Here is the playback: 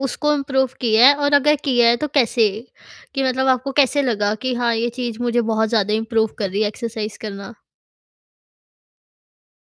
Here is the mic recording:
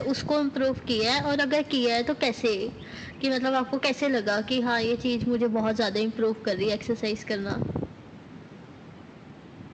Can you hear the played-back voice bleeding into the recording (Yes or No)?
Yes